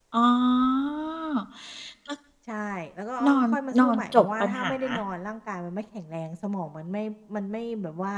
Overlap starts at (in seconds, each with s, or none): 3.5 s